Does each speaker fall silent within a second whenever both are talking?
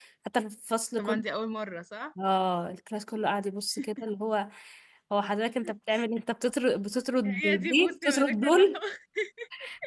No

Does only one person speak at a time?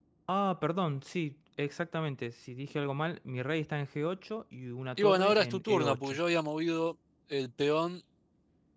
No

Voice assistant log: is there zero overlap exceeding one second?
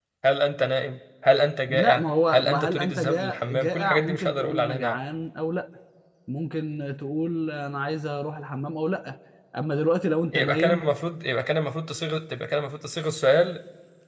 No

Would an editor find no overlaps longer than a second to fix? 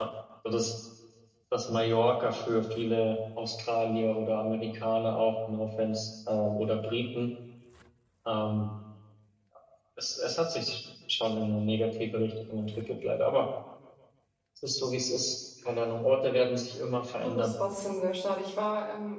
Yes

